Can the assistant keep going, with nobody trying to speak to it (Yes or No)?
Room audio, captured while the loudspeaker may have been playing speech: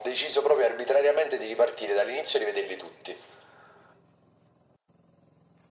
Yes